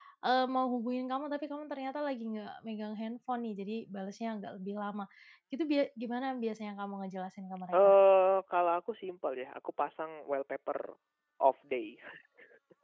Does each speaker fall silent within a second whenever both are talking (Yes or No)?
Yes